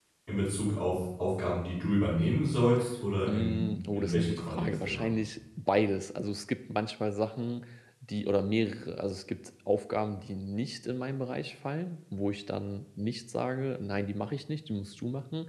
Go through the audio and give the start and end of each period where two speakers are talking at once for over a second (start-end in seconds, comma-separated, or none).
3.3-5.1